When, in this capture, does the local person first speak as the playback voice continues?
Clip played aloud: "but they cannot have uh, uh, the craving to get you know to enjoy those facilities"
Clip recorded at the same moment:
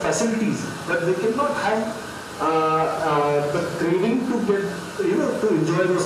none

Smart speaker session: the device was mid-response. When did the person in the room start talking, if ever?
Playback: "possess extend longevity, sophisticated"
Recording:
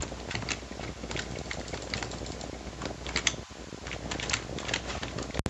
none

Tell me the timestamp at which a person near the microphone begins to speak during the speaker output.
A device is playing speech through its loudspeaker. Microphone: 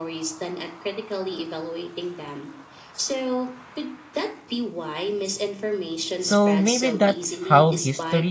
6.2 s

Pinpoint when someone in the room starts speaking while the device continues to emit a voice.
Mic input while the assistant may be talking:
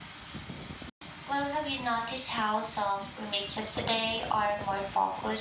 1.2 s

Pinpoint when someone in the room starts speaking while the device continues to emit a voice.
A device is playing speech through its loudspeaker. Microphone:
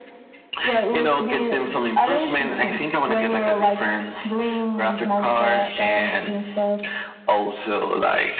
none

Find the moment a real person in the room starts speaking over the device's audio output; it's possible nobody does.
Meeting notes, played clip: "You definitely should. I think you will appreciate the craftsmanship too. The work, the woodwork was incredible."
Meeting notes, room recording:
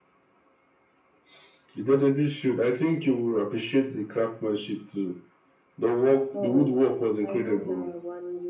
6.3 s

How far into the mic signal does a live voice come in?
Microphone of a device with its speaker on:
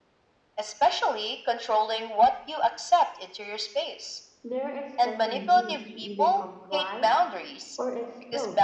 4.4 s

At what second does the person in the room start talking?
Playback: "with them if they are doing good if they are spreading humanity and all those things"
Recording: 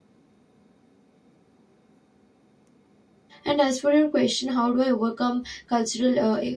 3.4 s

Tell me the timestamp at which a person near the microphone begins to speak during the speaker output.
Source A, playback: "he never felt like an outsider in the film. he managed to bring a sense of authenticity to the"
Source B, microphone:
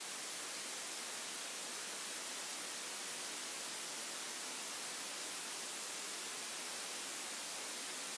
none

